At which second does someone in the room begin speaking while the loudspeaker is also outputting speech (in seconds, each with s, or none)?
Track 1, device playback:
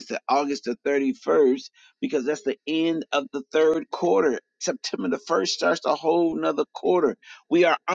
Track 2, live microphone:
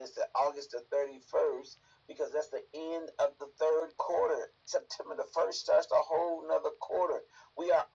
none